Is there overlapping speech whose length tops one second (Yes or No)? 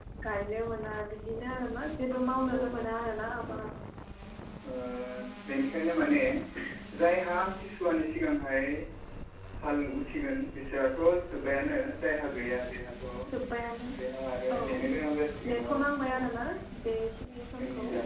No